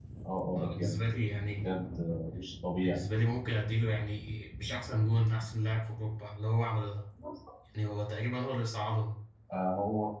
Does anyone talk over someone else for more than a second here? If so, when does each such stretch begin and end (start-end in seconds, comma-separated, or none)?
none